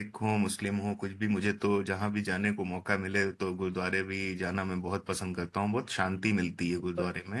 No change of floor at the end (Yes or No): No